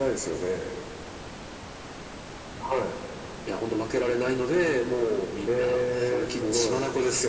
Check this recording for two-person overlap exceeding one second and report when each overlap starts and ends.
5.5-6.8

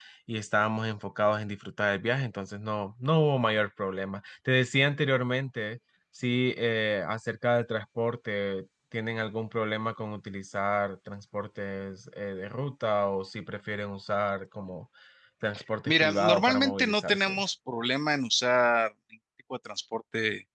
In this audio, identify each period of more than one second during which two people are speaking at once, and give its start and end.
15.8-17.3

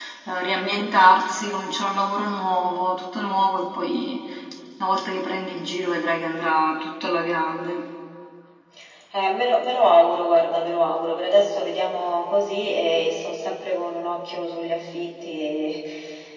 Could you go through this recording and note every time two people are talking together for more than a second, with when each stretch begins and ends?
none

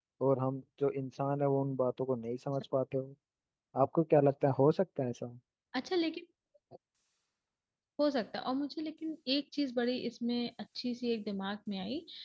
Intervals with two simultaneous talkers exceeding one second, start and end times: none

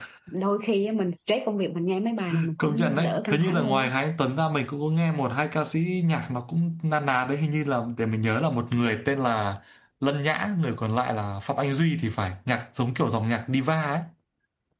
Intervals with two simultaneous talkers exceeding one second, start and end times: 2.6-3.9

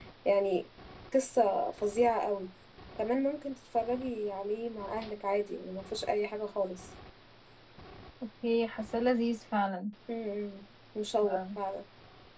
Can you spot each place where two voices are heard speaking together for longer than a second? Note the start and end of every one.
none

